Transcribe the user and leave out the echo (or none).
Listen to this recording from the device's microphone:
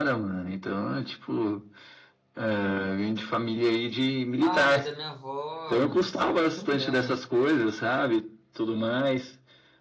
Ah, mas a minha avó, mano, vocês sabem que é mulher, né?